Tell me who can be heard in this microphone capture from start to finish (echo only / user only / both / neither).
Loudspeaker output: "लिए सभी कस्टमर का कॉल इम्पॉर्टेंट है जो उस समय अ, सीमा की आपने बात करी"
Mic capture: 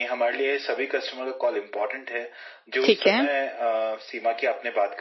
both